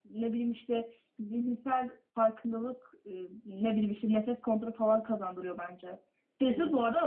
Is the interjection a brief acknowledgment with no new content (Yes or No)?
No